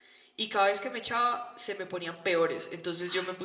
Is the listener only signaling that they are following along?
Yes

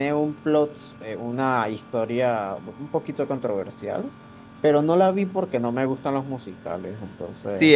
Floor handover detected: Yes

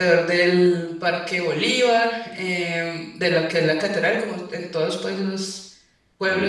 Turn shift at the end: No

